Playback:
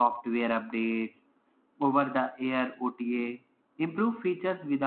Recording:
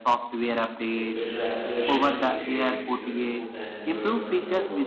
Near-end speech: present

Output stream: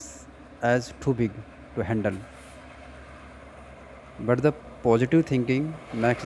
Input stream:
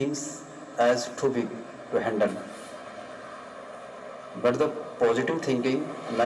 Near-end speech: none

